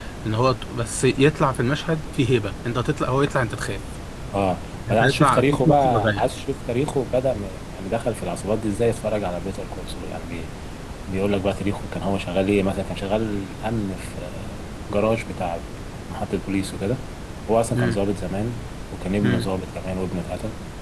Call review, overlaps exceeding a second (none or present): present